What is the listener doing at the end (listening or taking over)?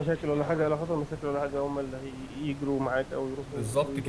taking over